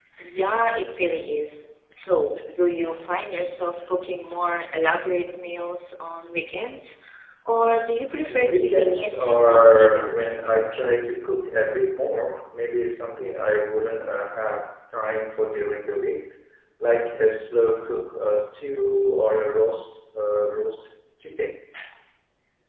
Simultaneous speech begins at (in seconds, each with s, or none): 8.3 s